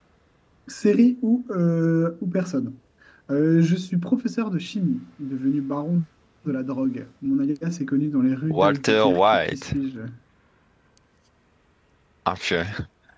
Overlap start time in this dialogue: 8.5 s

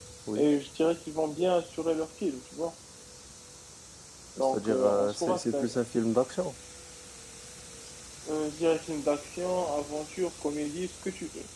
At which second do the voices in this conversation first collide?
4.4 s

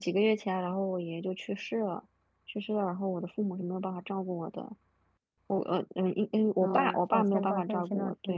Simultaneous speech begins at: 6.6 s

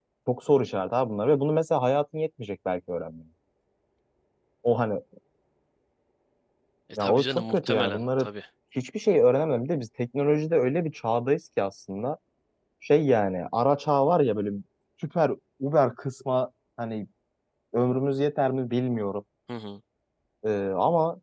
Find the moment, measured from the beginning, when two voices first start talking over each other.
7.0 s

